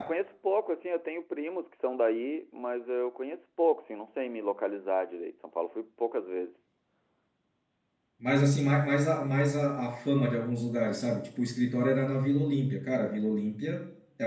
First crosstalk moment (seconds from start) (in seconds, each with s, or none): none